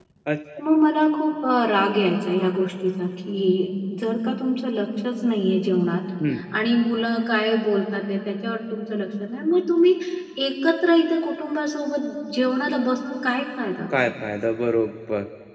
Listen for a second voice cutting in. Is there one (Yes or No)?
No